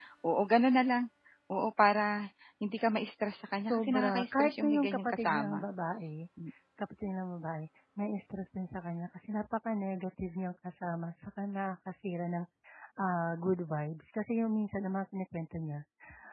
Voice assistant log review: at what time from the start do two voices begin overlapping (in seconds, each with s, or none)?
3.6 s